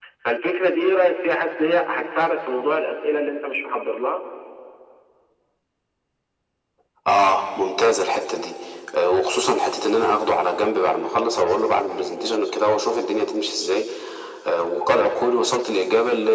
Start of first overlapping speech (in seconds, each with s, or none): none